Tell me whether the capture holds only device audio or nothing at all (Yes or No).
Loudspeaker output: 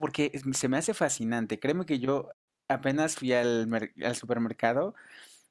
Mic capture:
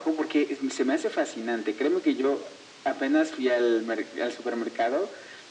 Yes